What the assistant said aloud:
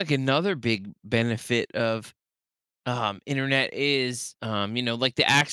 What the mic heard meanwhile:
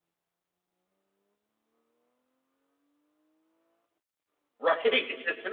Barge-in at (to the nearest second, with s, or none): 5 s